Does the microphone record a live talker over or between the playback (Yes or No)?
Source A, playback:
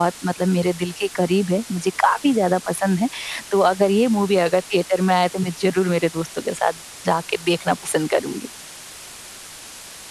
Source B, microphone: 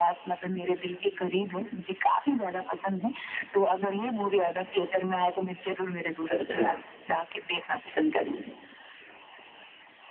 Yes